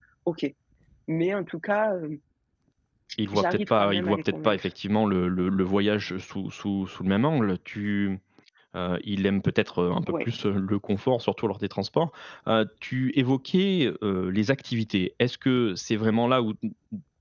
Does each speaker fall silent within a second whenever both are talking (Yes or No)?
No